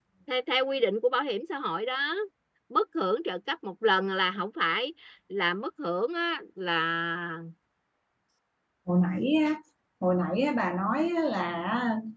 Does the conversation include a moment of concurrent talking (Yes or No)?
No